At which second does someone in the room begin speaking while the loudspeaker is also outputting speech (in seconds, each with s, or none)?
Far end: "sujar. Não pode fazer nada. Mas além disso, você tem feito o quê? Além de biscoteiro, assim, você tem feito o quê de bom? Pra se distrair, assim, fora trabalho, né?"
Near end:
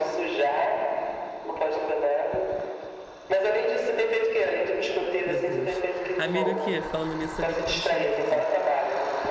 5.2 s